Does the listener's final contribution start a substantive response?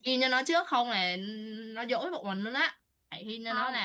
No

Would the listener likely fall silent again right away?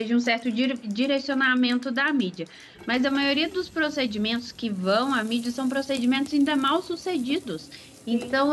Yes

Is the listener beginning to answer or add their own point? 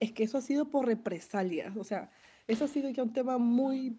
No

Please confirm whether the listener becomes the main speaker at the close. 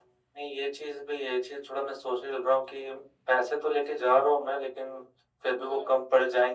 No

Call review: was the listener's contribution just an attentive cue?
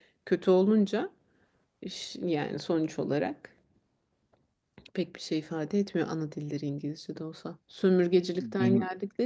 Yes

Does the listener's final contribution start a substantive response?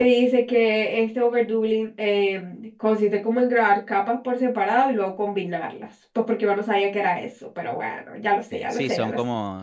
Yes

